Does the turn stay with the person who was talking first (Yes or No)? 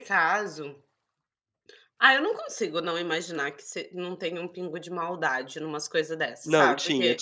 No